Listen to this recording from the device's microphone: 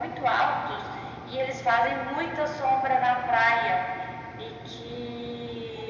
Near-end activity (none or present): none